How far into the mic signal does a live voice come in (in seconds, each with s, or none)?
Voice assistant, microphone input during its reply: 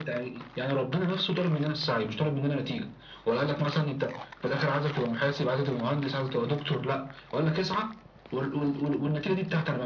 none